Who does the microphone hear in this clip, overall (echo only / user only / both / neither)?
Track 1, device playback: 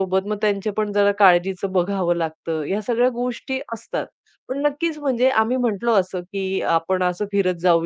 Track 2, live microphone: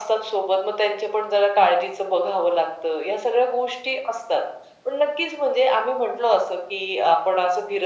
echo only